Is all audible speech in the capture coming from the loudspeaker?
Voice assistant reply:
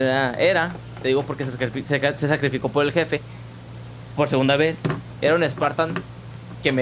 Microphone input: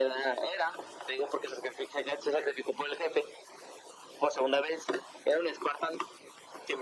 Yes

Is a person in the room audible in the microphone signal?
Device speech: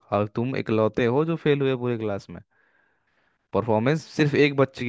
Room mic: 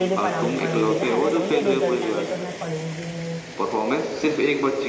Yes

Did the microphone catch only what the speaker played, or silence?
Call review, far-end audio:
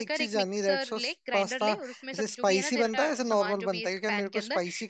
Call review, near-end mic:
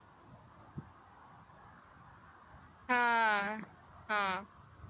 No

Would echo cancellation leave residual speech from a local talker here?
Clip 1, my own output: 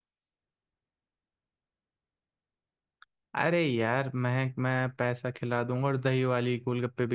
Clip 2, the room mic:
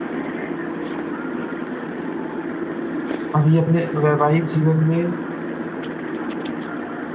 Yes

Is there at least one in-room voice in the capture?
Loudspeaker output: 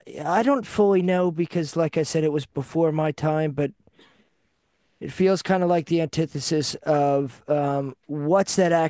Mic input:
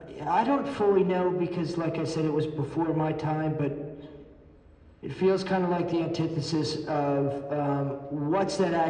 No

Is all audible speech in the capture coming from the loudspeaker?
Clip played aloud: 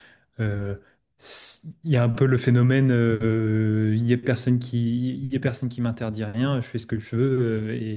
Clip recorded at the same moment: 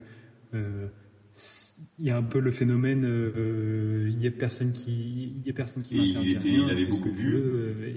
No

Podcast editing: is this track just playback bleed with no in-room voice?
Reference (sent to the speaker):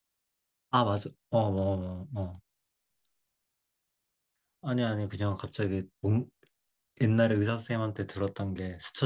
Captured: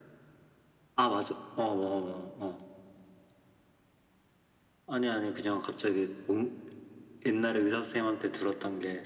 Yes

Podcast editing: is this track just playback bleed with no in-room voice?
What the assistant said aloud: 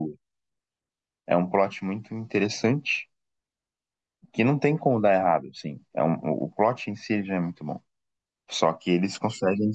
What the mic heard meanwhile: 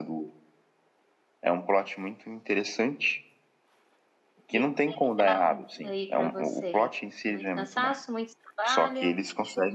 No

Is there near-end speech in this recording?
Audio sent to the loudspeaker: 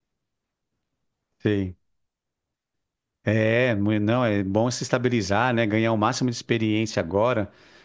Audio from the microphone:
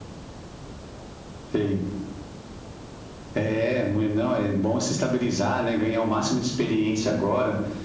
No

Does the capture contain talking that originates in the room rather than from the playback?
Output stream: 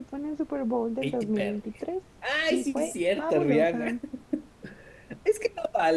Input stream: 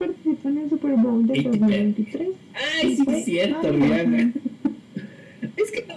No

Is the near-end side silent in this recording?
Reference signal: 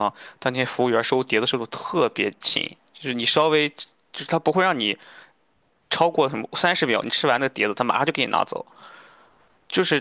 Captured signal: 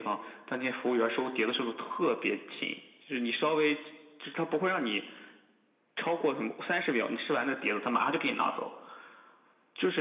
Yes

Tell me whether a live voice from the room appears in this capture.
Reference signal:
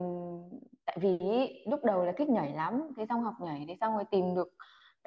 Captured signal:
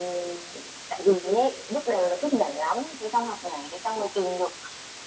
No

